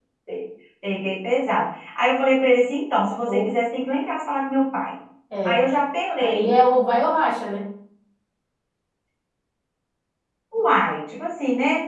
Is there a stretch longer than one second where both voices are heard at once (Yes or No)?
No